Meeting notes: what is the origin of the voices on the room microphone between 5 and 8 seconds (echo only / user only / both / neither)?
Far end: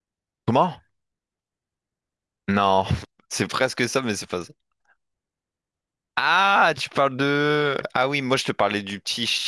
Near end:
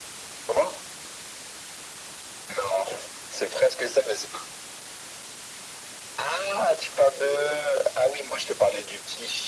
echo only